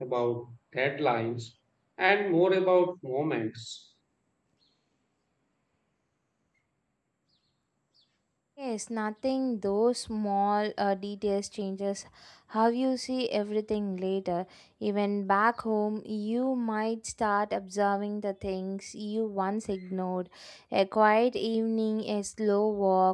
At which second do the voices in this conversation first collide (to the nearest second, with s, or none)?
none